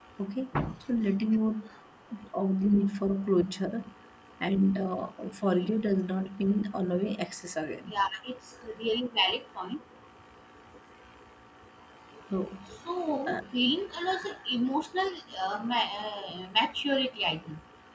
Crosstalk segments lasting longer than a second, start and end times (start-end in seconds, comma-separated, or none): none